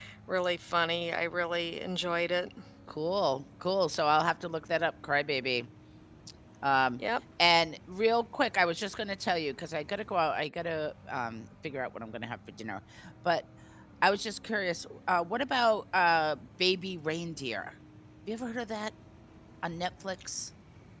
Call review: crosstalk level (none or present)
none